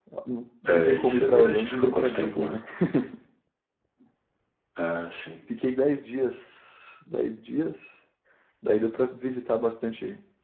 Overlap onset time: 0.7 s

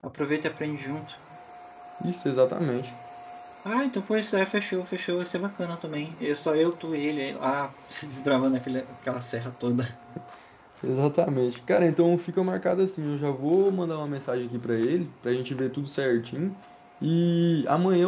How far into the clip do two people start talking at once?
none

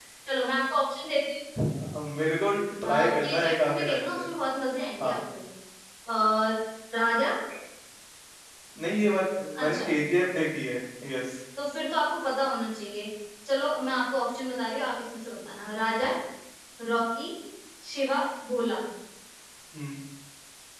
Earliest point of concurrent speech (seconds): 2.9 s

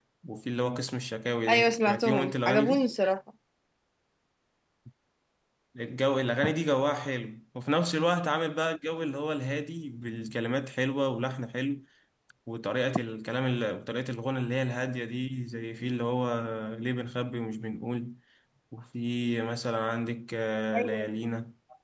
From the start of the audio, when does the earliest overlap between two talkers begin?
1.5 s

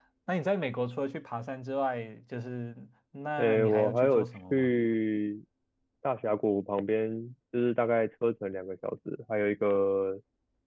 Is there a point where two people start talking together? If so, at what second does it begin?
3.4 s

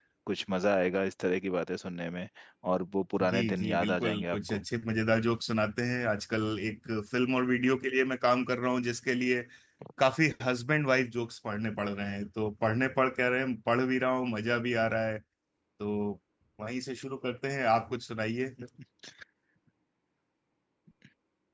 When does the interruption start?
3.3 s

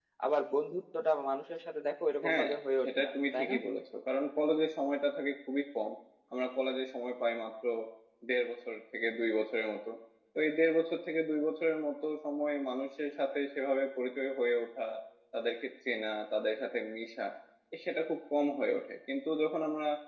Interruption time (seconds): 2.2 s

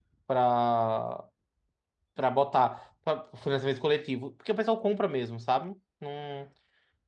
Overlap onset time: none

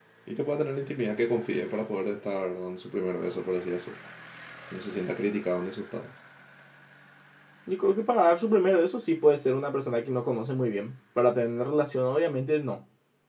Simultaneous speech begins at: none

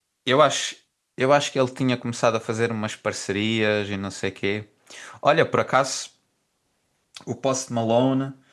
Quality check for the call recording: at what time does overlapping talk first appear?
none

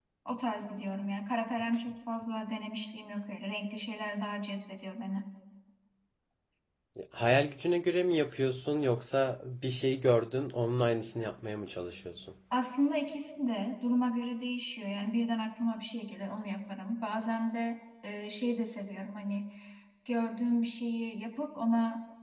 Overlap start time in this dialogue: none

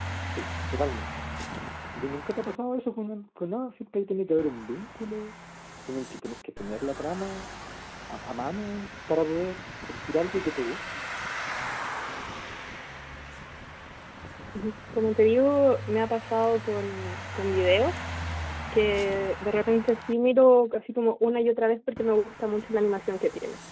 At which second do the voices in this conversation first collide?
none

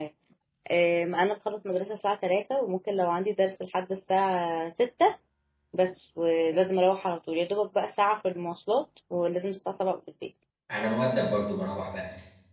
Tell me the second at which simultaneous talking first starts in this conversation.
none

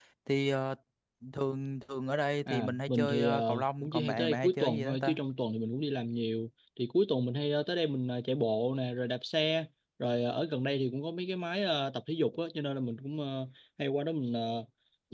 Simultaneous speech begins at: 2.5 s

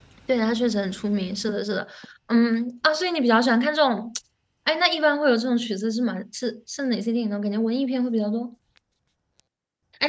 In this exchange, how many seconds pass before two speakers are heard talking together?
none

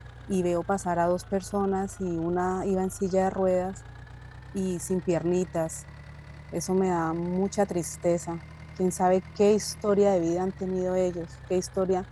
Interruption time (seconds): none

